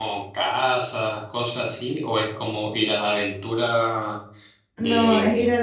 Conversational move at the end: taking over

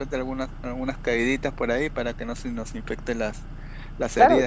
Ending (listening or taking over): taking over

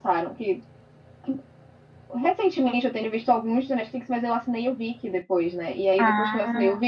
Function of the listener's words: listening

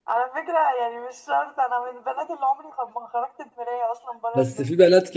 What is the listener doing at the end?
taking over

